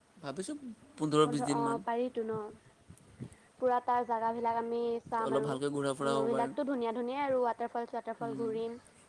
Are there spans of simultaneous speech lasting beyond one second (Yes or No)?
No